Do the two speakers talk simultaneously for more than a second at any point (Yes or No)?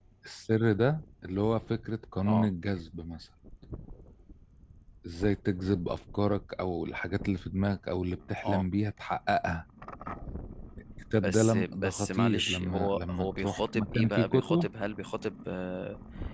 Yes